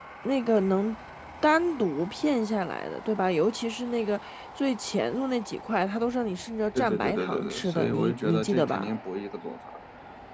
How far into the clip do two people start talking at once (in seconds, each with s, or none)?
6.8 s